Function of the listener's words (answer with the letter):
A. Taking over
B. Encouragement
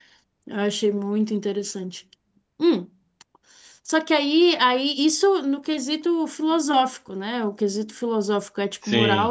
B